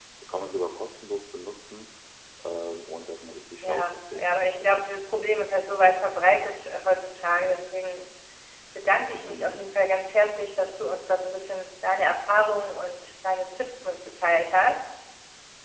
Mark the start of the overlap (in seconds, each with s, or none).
3.6 s